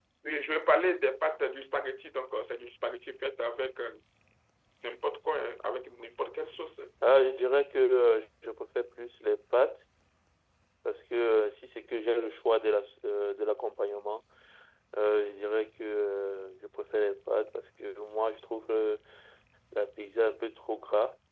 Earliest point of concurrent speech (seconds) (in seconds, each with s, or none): none